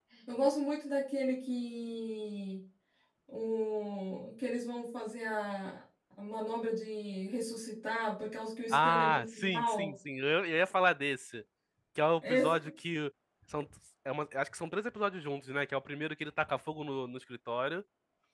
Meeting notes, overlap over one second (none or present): present